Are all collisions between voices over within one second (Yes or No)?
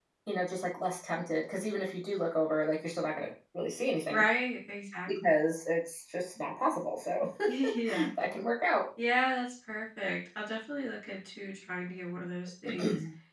Yes